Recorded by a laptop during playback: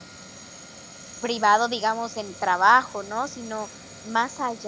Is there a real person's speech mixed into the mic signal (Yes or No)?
Yes